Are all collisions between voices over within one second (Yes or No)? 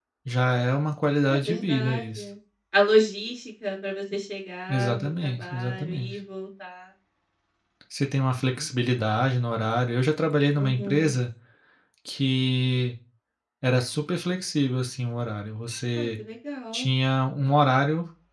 No